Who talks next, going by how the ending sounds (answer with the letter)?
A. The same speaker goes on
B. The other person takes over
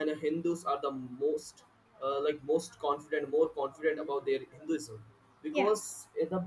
A